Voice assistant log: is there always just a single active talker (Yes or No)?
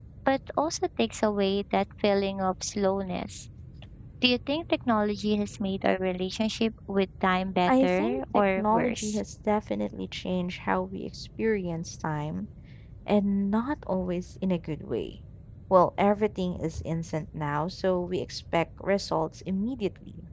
No